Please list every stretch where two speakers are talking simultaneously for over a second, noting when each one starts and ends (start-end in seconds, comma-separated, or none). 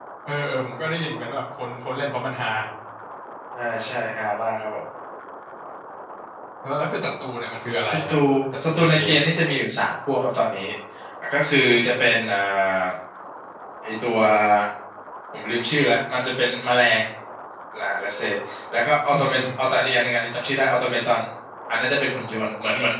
none